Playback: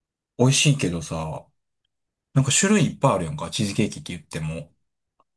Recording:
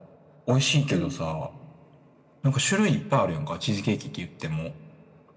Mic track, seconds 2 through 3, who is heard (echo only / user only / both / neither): echo only